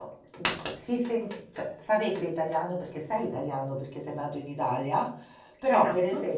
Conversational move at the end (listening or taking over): listening